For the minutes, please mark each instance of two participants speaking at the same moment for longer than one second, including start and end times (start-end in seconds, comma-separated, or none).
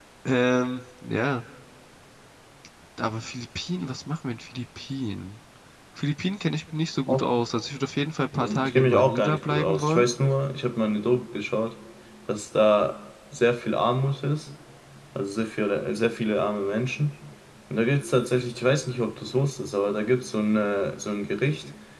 8.3-10.1